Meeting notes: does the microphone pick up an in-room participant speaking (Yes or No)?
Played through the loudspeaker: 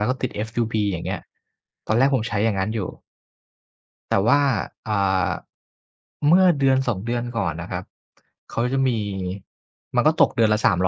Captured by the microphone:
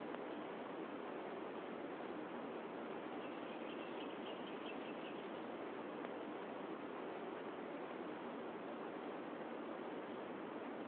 No